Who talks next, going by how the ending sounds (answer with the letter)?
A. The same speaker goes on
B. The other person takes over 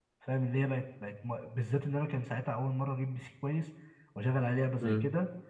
A